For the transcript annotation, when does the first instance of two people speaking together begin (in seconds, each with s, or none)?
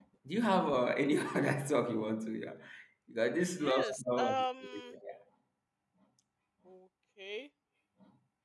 3.5 s